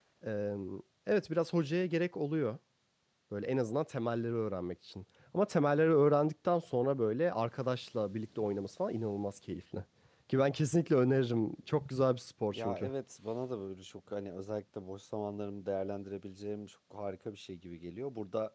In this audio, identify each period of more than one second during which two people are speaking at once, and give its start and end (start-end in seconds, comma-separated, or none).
none